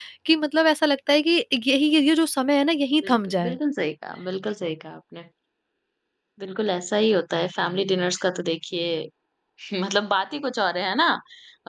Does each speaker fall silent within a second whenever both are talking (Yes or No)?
Yes